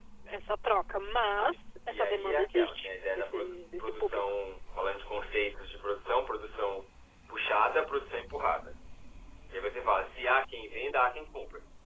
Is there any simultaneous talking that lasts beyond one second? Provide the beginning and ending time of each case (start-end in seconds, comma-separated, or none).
1.9-4.2